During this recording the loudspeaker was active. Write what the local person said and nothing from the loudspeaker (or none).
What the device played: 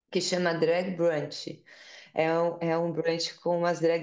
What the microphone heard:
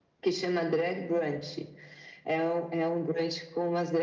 none